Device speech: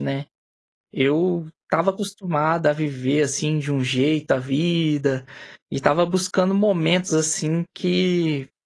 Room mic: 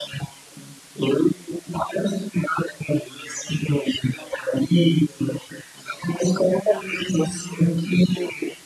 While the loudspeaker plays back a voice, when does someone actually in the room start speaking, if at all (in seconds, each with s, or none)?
6.7 s